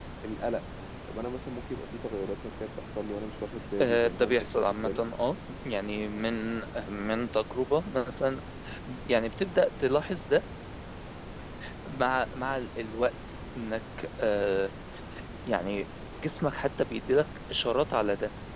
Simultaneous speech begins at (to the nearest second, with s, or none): 4 s